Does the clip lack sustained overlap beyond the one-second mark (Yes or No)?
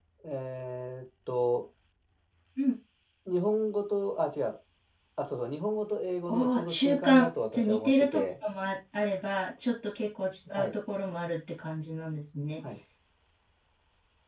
No